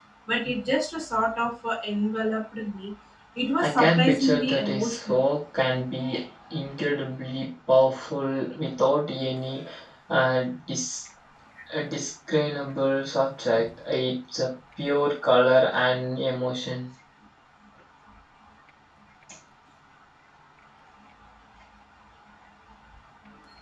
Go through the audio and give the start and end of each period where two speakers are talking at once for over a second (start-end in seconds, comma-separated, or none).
3.6-5.2